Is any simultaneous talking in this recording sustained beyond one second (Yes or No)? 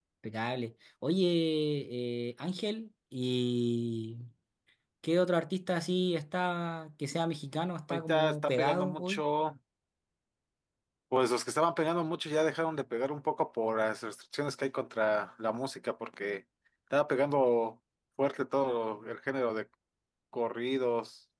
Yes